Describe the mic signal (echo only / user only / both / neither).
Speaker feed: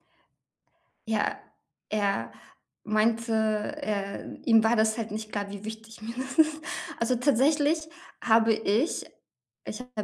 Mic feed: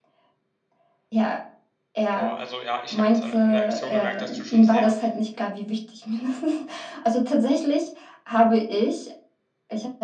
both